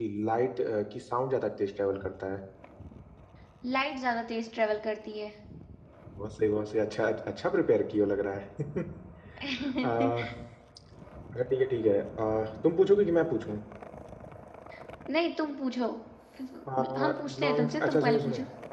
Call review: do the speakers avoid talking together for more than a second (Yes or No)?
No